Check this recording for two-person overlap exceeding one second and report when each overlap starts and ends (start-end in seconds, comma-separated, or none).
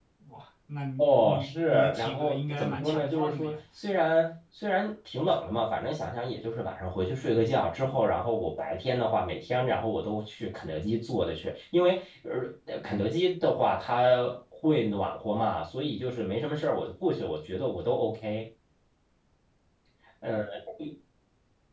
1.0-3.6